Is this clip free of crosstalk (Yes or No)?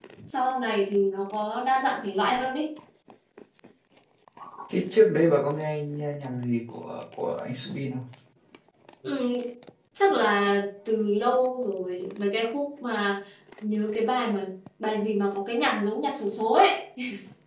Yes